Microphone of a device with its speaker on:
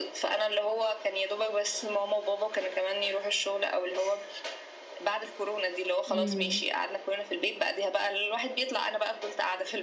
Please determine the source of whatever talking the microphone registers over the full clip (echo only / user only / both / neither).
both